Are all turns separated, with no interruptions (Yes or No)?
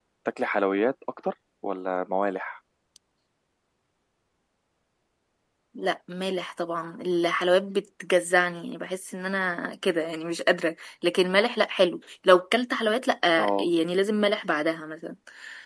Yes